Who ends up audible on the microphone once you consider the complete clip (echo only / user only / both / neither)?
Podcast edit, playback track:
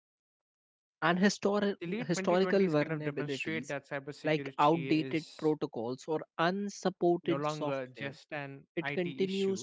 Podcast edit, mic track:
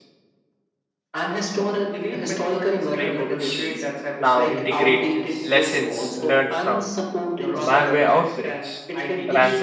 both